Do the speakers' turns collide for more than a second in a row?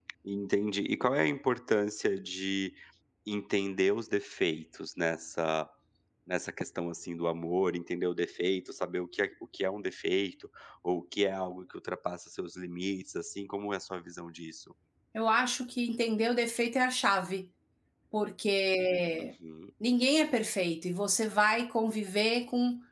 No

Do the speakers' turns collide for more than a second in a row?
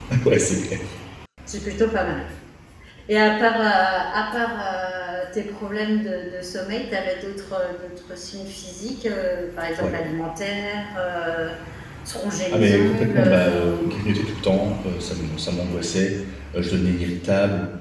Yes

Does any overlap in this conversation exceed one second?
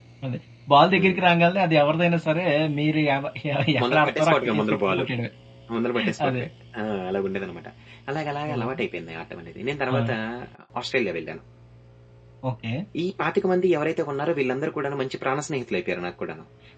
Yes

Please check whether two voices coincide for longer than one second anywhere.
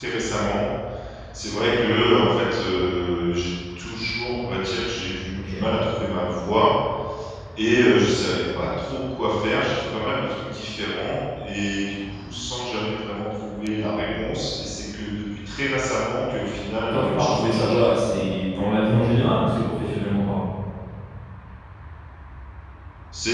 Yes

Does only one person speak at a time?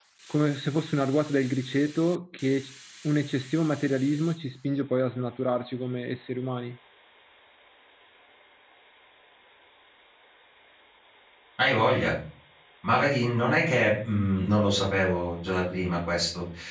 Yes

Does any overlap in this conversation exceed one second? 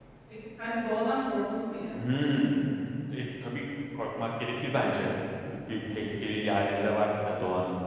No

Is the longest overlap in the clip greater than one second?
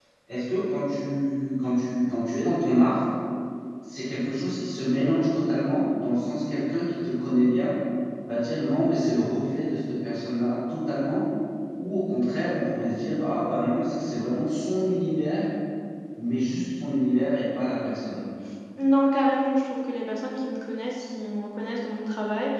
No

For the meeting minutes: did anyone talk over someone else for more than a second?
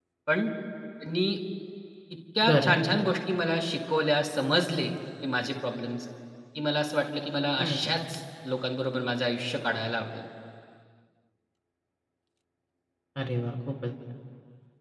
No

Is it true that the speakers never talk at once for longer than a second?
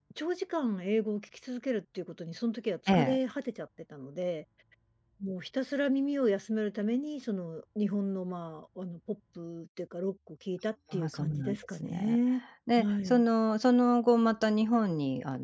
No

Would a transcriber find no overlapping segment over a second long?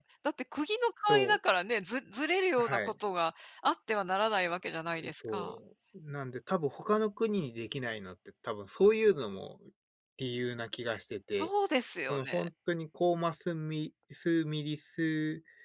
Yes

